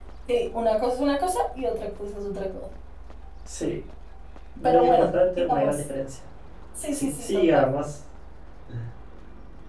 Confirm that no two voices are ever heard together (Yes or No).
No